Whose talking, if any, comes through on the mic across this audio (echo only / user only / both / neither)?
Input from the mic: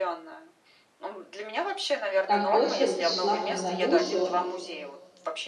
both